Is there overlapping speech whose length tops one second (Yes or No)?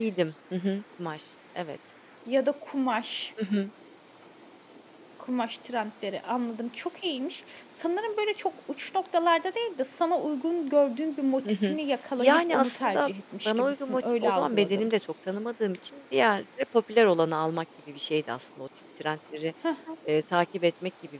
Yes